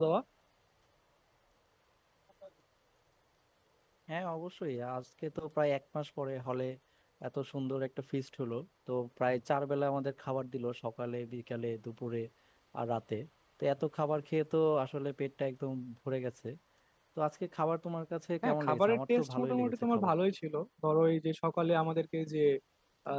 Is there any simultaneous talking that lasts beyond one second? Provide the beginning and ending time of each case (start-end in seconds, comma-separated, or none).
18.4-20.1